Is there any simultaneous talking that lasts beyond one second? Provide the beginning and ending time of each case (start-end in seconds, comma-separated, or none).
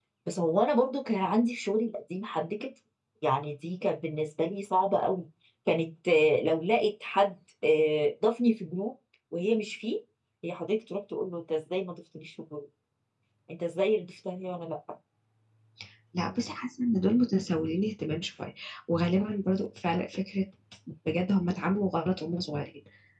none